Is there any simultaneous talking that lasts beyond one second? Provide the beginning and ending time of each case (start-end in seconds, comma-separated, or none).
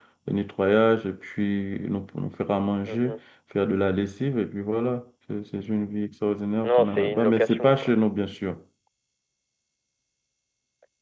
6.6-7.9